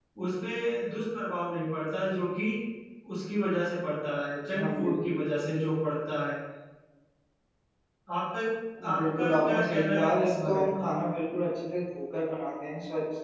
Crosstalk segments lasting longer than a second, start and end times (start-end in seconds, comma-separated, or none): 9.0-10.7